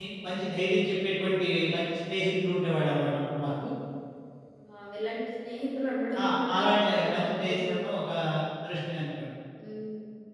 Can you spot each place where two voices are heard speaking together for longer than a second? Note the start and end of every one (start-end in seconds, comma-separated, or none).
6.2-7.9